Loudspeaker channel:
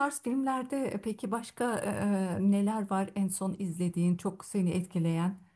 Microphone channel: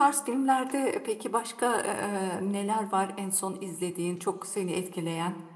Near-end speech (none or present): none